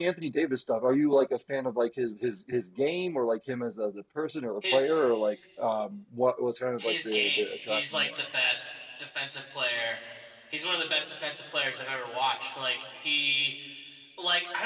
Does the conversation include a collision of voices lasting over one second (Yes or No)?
Yes